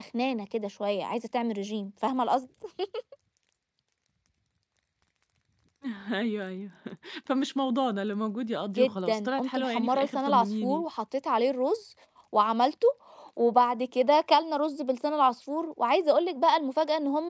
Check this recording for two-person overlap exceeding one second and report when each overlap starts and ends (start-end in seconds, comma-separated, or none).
8.8-10.8